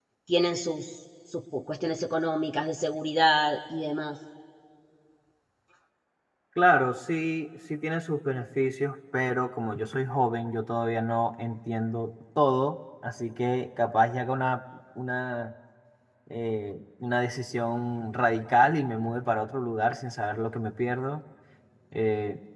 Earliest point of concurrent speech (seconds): none

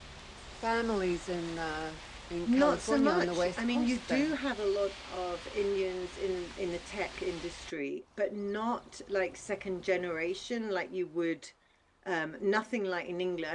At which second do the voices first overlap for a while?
2.5 s

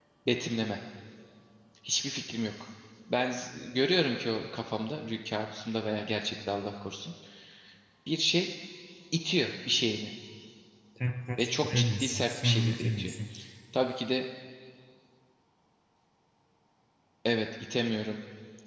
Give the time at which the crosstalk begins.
11.4 s

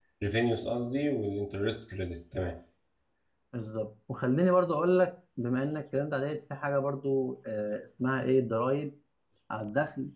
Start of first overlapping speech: none

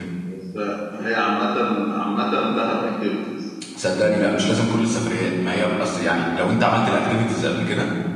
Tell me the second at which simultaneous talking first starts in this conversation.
none

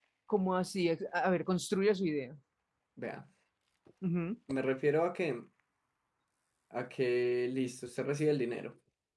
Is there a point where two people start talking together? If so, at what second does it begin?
none

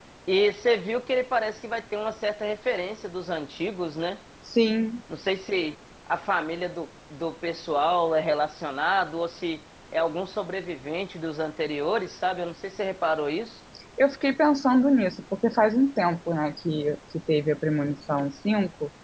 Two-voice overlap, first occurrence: none

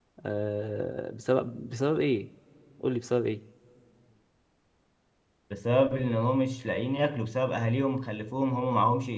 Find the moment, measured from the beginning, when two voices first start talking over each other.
none

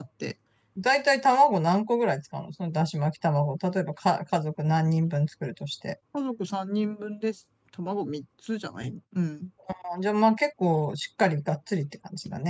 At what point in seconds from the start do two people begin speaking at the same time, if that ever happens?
none

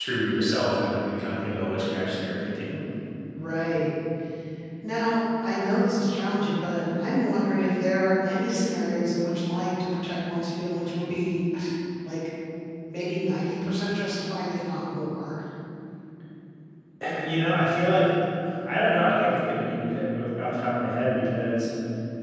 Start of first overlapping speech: none

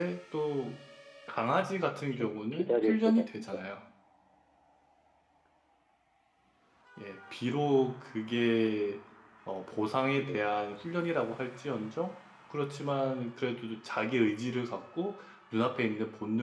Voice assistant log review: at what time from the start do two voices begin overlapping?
2.1 s

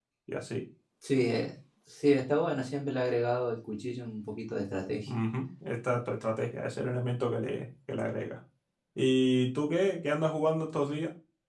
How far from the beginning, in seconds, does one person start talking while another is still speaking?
none

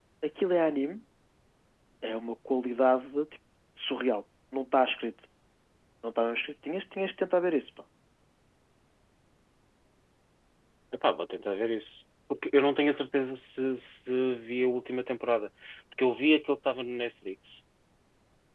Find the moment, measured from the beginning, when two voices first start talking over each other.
none

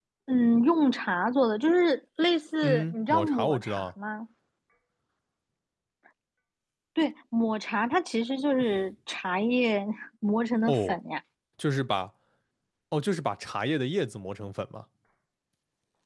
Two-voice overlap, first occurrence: 2.6 s

